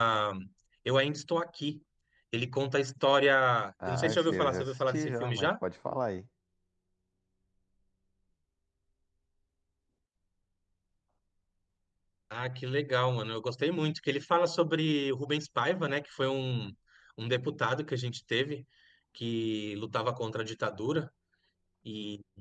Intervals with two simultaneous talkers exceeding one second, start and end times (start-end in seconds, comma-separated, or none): 3.9-5.5